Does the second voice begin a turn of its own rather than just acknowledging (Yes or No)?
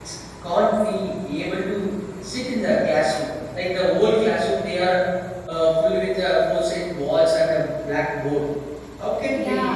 No